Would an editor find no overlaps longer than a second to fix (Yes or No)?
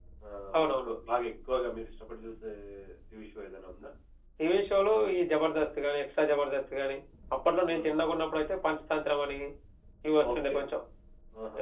Yes